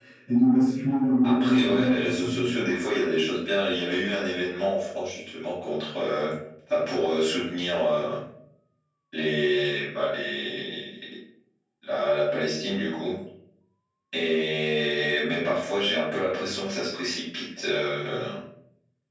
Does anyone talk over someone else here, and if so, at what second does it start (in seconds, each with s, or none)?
1.2 s